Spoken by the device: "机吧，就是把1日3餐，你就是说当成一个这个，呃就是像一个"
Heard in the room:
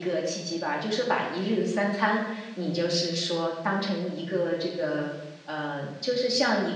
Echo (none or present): present